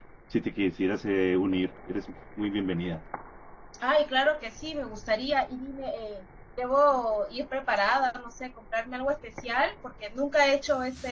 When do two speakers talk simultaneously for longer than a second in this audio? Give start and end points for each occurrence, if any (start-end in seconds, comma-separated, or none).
none